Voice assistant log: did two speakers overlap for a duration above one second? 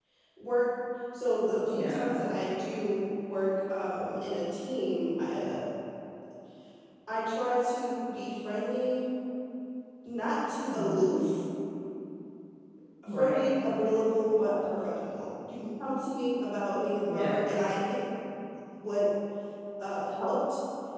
No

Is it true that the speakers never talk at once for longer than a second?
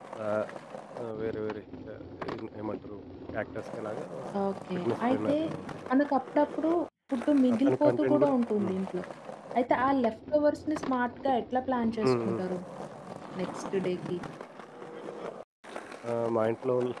No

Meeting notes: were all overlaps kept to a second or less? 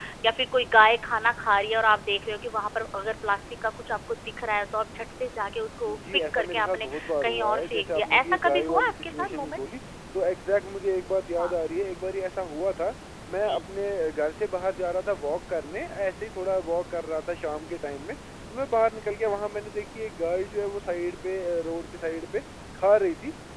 No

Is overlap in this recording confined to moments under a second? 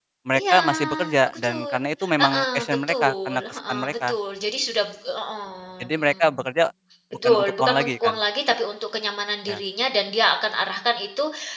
No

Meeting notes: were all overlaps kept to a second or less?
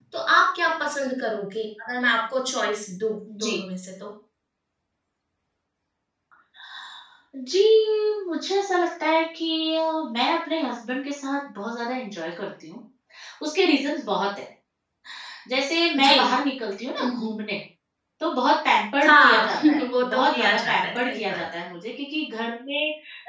No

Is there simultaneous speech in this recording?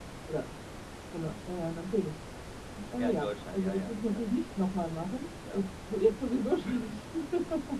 Yes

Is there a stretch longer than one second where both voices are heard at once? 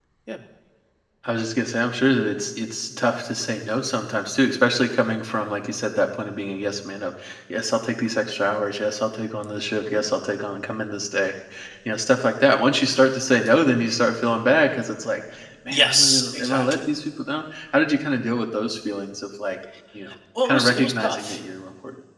Yes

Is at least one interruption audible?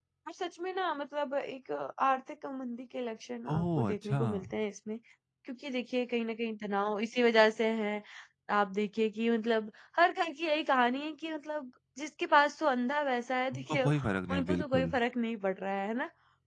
Yes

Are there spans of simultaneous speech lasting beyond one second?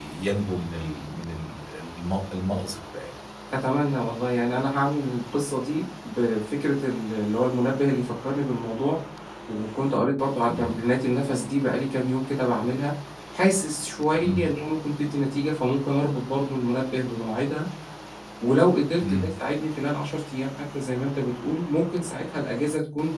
No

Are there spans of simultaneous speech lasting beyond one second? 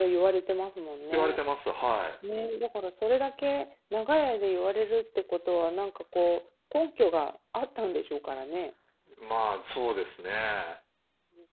No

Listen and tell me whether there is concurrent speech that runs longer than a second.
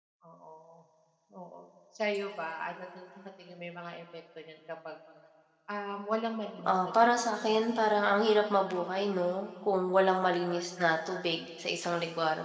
Yes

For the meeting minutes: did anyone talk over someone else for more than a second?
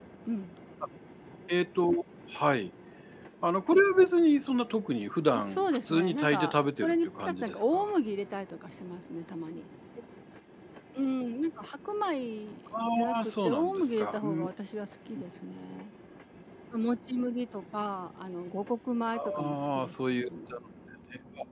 Yes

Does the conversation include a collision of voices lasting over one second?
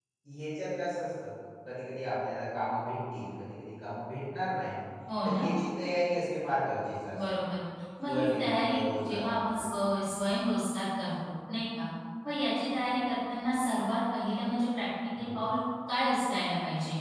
Yes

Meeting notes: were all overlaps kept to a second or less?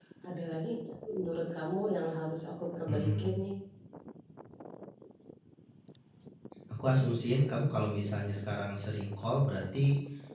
Yes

